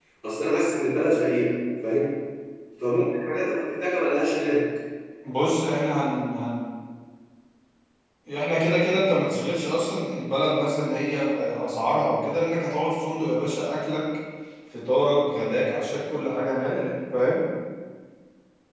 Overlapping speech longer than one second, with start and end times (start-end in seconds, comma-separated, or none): none